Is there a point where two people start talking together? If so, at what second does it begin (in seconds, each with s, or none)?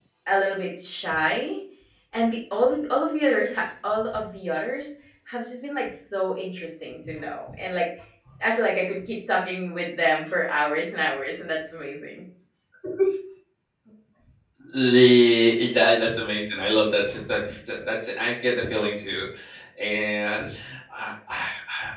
none